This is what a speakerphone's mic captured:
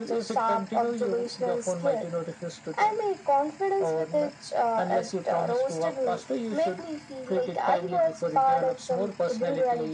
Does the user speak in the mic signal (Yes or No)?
No